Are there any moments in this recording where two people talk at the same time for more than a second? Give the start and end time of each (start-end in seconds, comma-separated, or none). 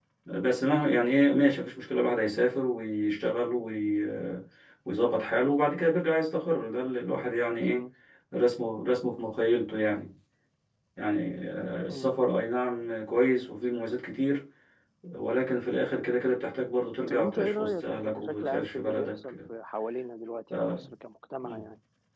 17.1-19.4